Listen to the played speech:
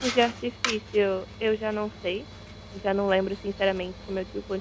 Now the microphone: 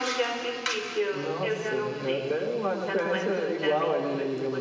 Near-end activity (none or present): present